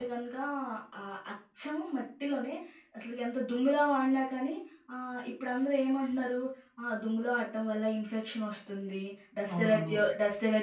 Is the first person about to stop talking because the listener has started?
No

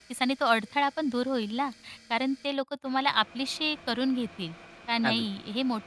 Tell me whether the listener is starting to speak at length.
No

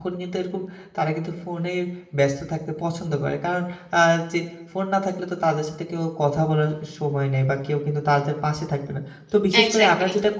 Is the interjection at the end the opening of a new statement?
No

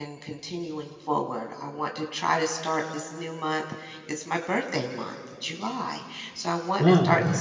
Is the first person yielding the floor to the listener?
No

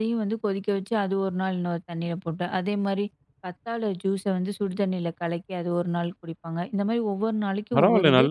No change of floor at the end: No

